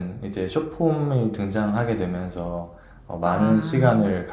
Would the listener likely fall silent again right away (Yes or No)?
Yes